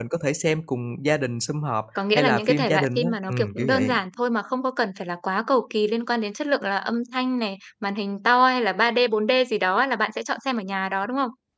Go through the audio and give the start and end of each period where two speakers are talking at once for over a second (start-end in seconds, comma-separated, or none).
2.1-3.9